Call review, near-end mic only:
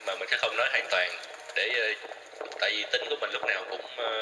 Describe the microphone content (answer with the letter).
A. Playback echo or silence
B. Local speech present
A